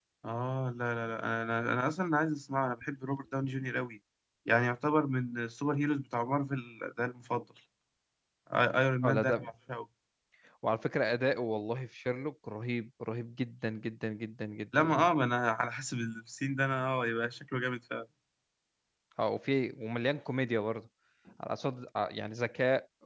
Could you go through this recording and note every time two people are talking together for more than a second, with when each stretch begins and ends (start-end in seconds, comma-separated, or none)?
none